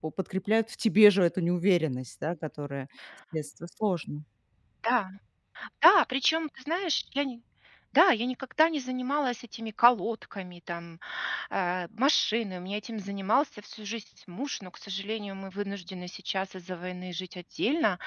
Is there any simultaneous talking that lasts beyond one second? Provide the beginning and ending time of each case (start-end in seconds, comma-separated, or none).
none